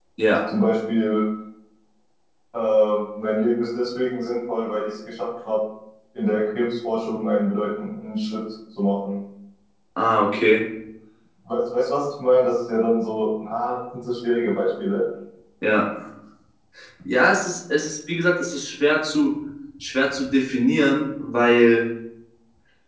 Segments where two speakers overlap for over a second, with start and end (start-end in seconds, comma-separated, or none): none